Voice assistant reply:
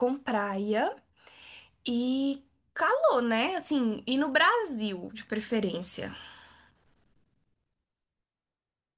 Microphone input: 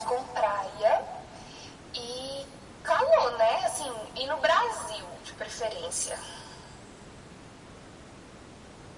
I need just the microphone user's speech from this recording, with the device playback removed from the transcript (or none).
none